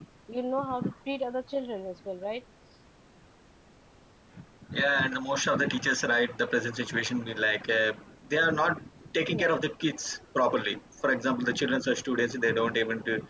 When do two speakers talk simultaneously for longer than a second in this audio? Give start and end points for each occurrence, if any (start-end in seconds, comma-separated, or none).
none